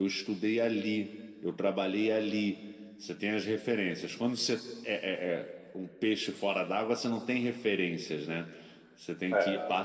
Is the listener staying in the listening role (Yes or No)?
Yes